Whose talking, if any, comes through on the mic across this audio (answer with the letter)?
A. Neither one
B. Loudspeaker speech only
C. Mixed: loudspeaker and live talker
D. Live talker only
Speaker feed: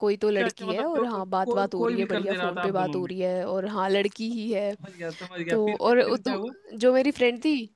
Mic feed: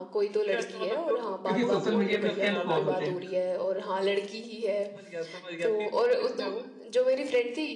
C